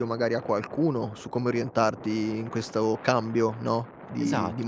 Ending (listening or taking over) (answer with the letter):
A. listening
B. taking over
B